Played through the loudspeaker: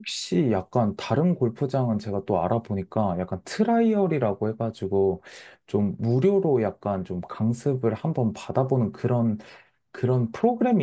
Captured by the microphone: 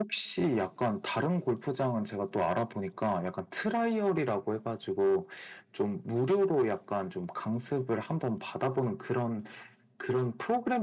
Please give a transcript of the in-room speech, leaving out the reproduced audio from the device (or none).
none